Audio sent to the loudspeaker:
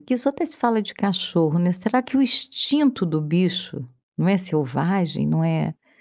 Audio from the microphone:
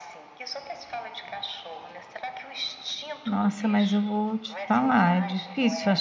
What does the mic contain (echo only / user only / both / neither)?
both